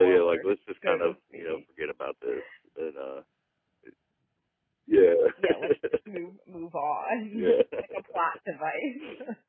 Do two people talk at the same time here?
Yes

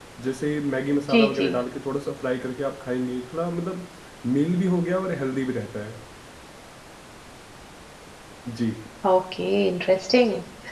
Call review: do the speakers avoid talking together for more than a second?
Yes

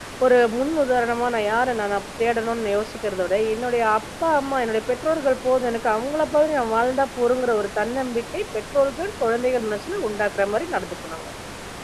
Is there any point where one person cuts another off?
No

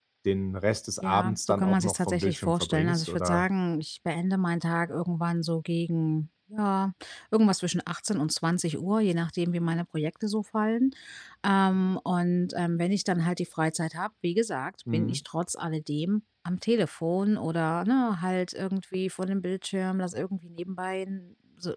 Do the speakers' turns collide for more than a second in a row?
Yes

